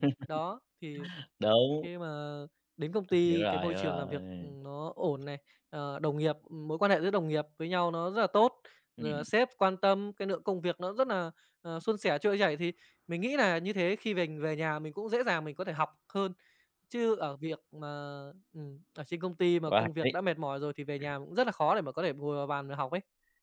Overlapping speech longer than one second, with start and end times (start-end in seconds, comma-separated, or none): 3.2-4.5